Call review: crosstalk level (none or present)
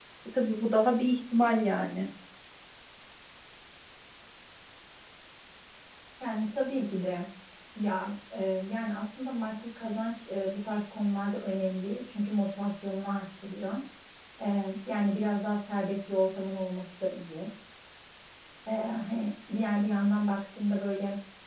none